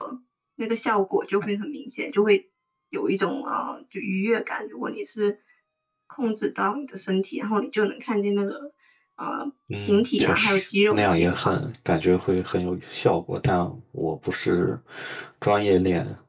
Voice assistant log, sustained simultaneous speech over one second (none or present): present